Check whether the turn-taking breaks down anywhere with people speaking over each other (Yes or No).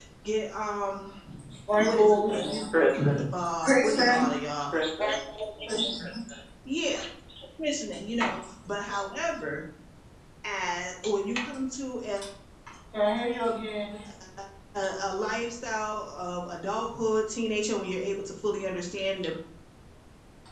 Yes